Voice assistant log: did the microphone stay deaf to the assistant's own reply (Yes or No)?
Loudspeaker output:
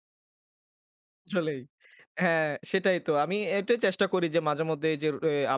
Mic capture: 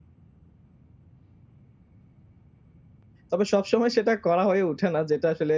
Yes